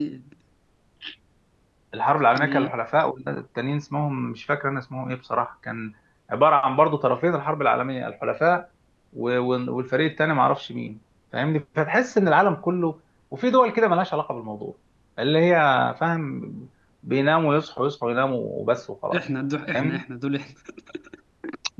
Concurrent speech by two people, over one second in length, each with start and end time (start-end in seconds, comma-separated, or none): none